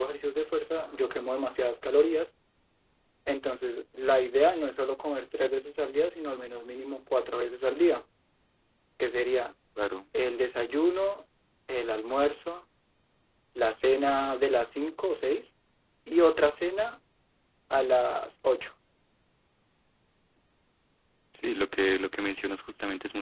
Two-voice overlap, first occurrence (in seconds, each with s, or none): none